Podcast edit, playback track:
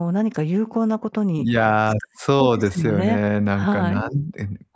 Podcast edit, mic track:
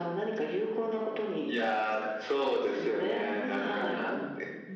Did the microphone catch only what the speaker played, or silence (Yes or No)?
No